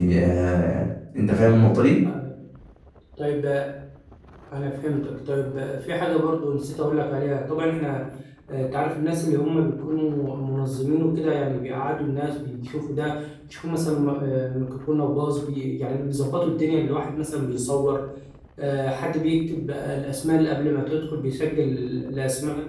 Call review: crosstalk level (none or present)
none